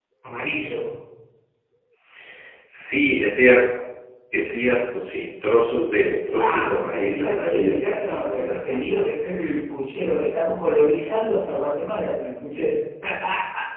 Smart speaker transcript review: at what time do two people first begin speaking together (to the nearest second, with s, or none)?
6 s